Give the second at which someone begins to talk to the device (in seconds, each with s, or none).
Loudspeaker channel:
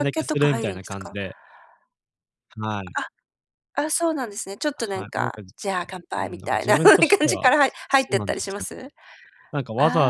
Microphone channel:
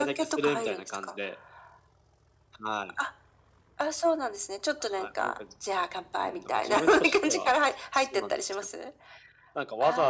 none